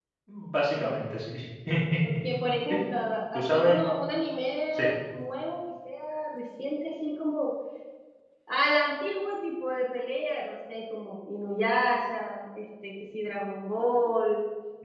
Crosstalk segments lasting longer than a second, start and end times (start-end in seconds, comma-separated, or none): none